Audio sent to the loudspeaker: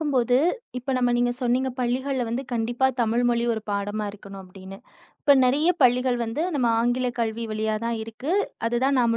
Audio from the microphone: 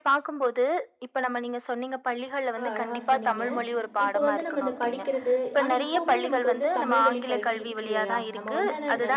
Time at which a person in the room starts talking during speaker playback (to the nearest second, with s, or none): 3 s